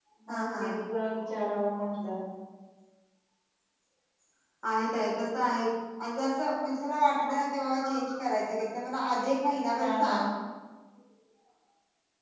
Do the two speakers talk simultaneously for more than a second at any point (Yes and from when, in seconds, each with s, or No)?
No